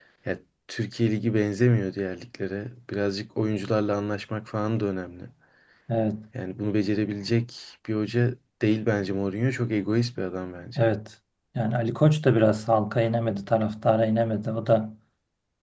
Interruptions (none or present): none